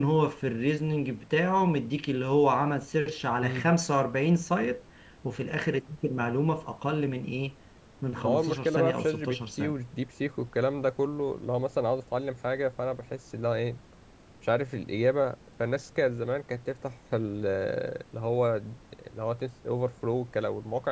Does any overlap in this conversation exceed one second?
Yes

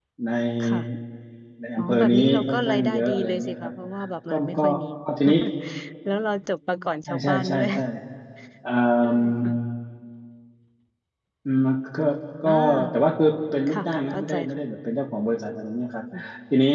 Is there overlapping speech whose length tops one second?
Yes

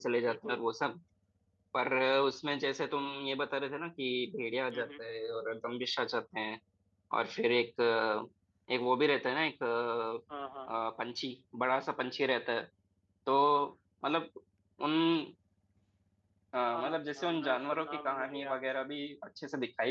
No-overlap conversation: No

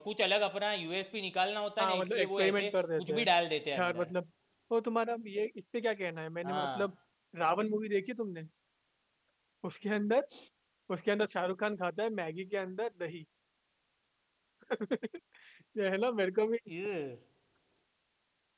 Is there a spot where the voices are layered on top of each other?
Yes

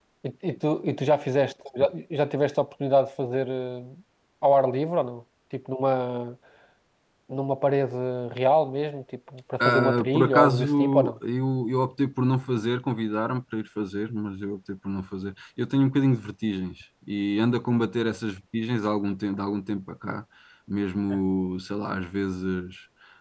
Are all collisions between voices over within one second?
No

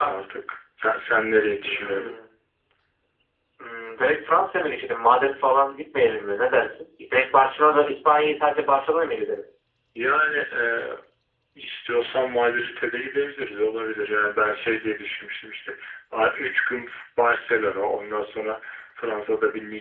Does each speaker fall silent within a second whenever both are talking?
Yes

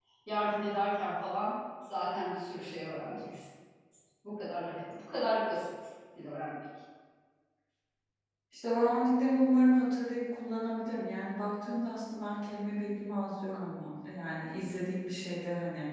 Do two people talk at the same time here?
No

